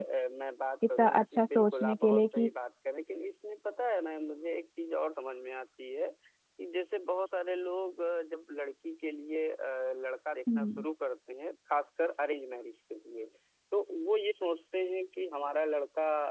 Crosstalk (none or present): present